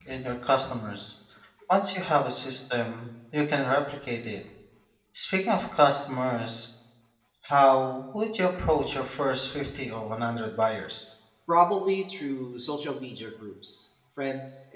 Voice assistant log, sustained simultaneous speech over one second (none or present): none